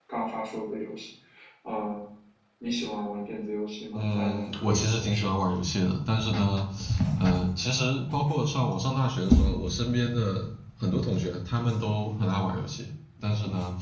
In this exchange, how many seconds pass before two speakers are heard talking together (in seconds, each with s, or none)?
4.0 s